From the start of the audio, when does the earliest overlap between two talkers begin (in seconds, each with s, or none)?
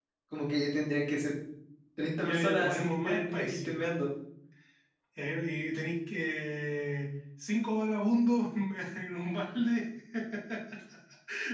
2.2 s